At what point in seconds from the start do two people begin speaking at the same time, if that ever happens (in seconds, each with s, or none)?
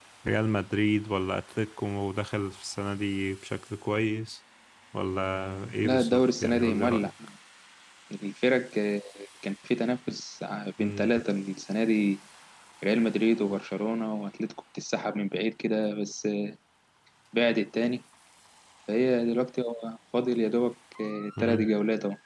5.8 s